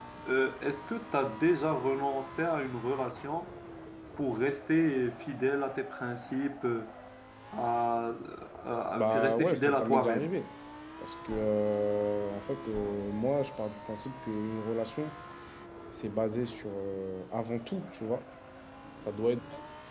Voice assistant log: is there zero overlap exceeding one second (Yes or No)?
No